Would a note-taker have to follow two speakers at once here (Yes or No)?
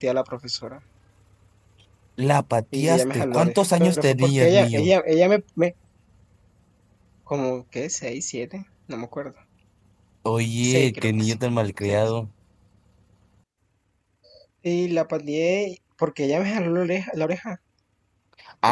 Yes